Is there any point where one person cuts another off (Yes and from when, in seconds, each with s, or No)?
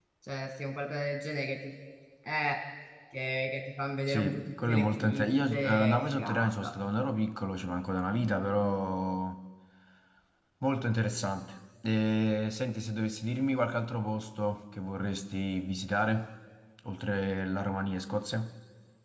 Yes, from 4.1 s